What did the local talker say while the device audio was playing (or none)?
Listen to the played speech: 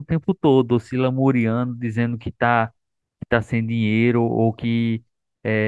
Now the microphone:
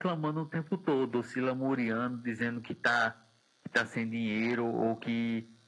none